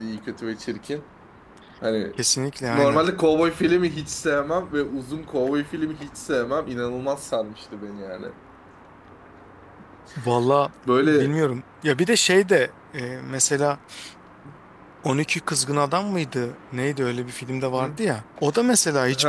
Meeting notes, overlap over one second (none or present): none